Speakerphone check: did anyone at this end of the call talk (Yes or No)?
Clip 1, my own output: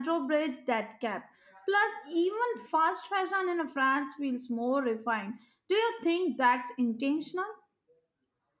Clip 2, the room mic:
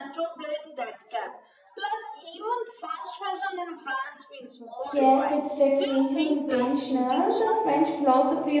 Yes